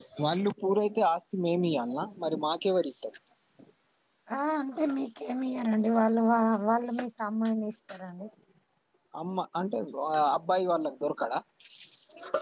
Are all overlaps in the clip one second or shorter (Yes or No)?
Yes